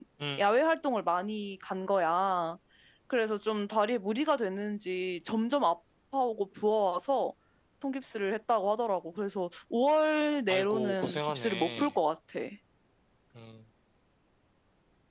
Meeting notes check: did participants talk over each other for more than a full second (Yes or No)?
Yes